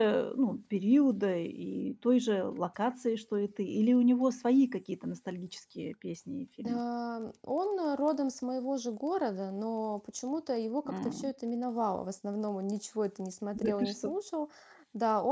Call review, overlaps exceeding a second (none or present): none